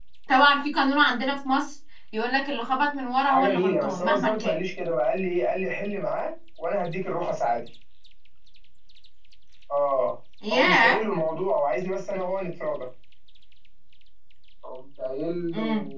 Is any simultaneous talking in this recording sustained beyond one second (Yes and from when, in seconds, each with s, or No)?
Yes, from 3.2 s